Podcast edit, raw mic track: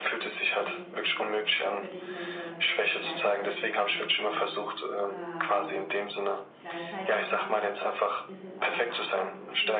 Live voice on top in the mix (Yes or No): No